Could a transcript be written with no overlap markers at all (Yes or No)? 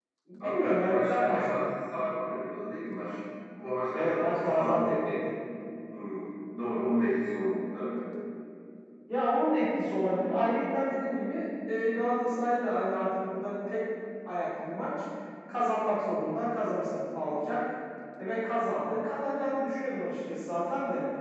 No